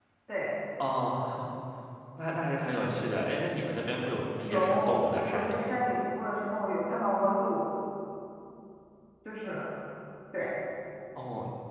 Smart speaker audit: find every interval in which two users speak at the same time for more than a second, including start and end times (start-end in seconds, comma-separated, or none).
4.4-5.7